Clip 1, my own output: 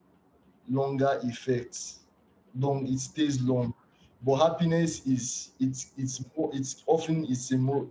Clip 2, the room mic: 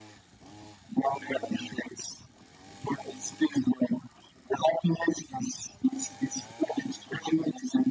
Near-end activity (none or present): none